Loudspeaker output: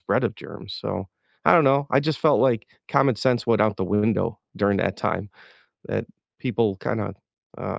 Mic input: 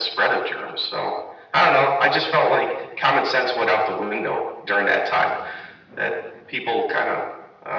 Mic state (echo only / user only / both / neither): echo only